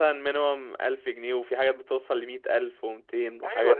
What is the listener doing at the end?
taking over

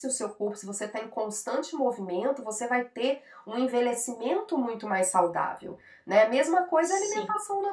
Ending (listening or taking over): listening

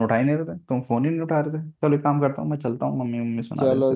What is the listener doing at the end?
taking over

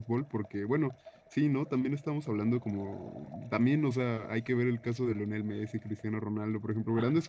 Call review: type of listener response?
listening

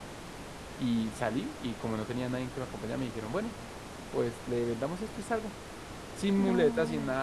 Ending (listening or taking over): listening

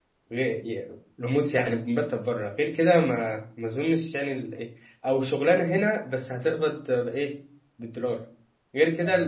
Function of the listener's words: listening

